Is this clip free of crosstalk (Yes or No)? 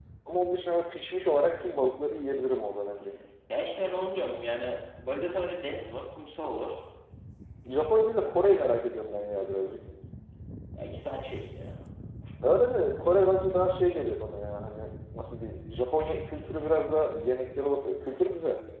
Yes